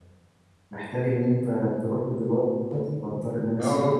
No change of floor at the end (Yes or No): No